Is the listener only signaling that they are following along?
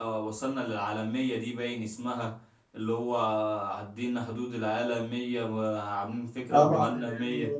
No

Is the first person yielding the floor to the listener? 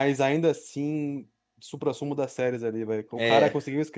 No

